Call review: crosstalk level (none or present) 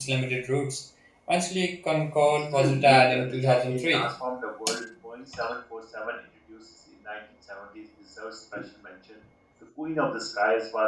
present